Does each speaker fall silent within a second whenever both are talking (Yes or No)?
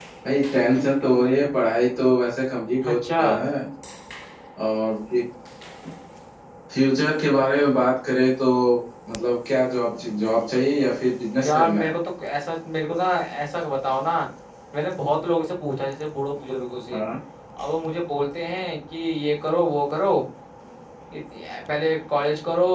Yes